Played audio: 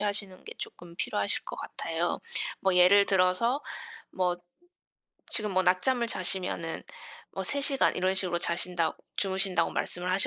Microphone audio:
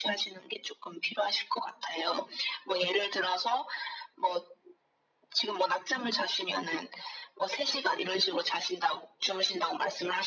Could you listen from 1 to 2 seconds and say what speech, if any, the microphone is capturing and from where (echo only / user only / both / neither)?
echo only